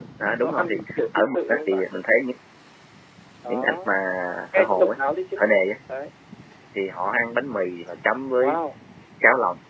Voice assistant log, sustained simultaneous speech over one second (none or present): present